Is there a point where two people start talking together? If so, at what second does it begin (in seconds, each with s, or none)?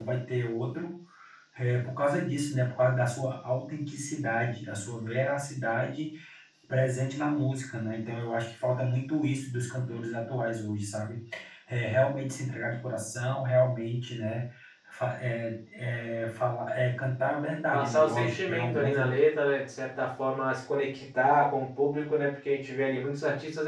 17.7 s